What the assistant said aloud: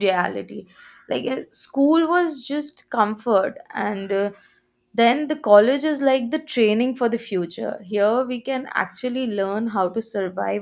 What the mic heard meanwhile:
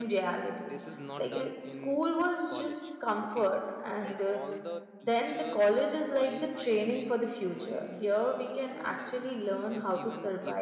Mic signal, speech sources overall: both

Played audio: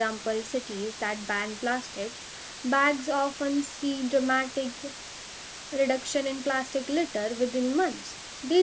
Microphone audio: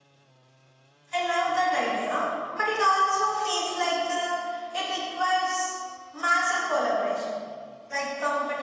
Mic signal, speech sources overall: user only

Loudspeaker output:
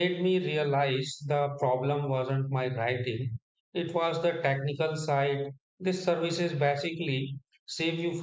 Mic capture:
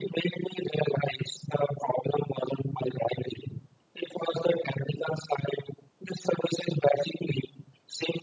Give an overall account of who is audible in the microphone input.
echo only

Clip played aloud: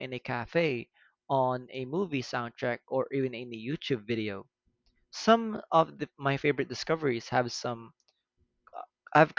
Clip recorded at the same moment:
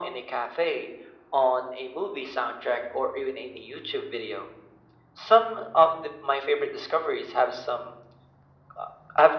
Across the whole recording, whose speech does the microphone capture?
echo only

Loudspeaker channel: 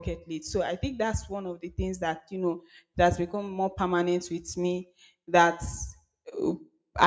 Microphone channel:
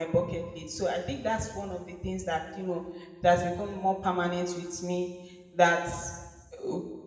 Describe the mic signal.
echo only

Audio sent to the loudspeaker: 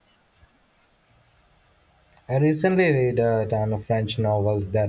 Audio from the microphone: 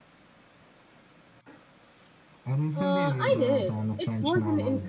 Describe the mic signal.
both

